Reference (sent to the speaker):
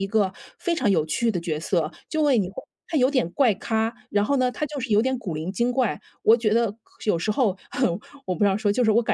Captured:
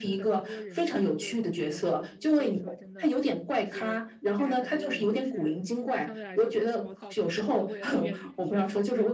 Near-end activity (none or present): present